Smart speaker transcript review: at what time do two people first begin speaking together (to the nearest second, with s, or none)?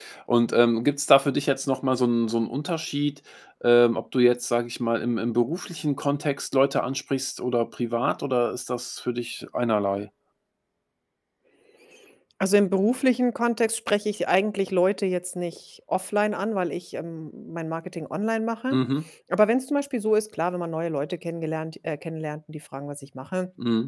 none